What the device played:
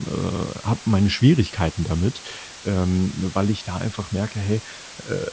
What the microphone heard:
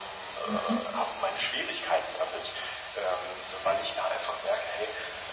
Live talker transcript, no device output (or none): Mhm.